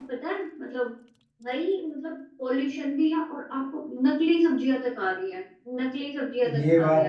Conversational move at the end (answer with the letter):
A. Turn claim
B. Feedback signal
A